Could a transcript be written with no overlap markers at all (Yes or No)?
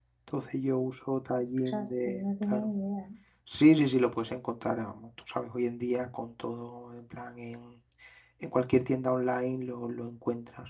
No